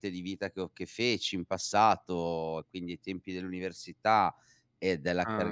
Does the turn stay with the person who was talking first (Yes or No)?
Yes